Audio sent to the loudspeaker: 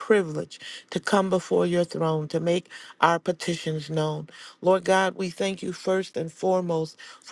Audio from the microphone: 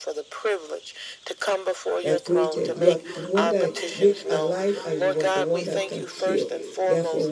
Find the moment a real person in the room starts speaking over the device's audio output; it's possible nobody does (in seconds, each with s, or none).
2.0 s